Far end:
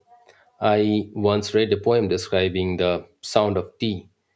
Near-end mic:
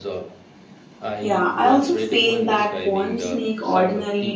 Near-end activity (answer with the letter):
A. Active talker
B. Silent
A